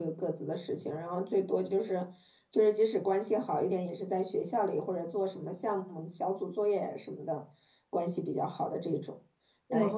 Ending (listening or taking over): listening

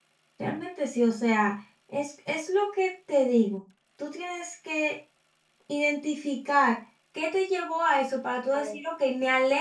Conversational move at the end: listening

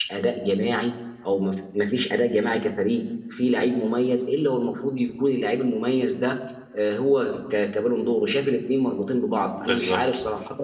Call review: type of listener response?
listening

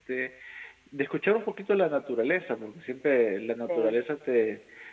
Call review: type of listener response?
listening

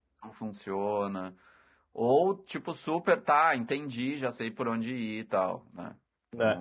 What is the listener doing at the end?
taking over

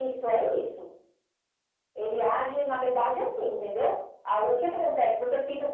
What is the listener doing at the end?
listening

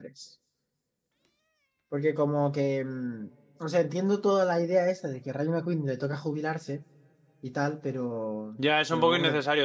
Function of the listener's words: taking over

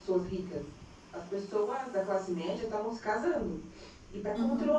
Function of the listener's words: listening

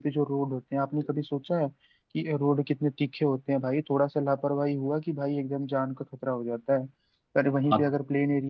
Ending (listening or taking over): listening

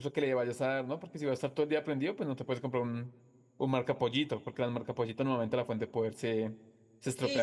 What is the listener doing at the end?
taking over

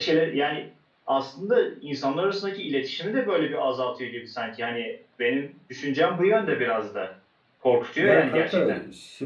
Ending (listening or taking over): taking over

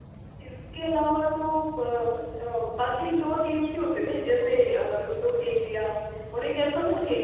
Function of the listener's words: listening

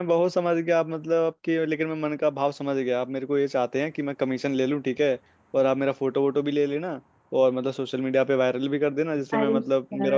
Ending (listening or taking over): taking over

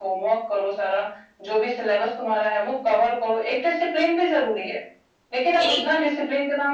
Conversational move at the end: listening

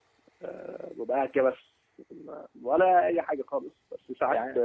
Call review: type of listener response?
listening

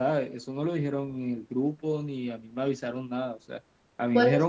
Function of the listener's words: listening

